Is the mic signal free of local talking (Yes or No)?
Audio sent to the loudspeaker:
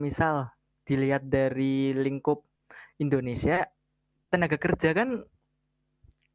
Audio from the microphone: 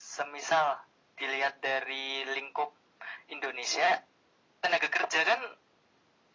Yes